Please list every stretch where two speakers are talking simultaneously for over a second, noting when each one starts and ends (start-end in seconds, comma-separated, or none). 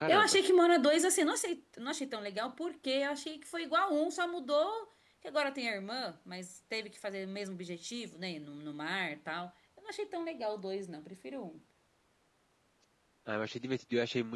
none